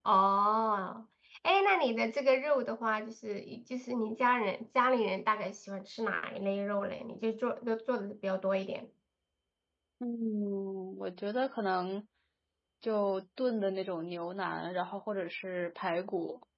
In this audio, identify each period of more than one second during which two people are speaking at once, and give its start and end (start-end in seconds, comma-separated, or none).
none